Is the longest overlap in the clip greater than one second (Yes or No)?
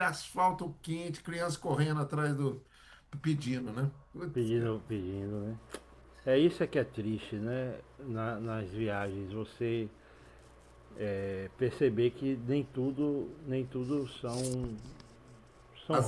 No